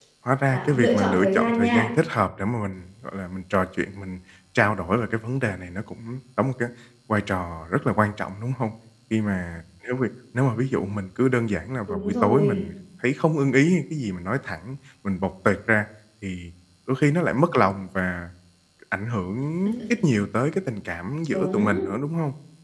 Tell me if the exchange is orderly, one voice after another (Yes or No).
No